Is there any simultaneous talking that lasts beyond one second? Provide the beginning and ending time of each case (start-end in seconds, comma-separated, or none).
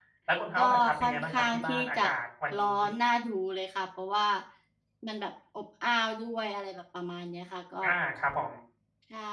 0.6-2.1